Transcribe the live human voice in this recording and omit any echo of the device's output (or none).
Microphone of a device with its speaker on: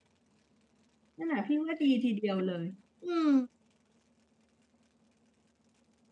นั่นแหละพี่ว่าดีทีเดียวเลยอืม